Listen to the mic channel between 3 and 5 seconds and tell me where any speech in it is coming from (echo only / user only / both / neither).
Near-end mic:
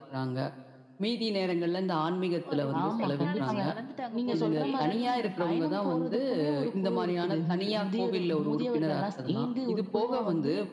both